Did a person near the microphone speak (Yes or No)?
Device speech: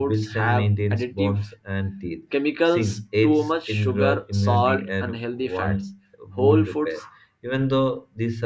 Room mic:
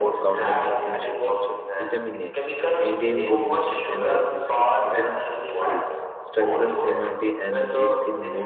Yes